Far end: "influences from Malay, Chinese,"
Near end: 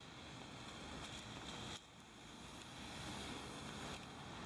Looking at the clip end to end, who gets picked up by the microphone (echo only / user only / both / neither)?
neither